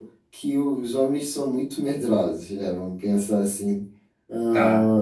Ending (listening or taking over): listening